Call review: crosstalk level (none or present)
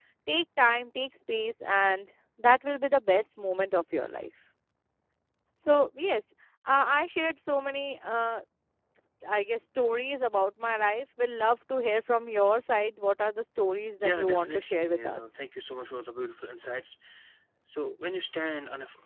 present